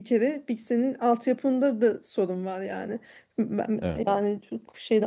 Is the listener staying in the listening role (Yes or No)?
Yes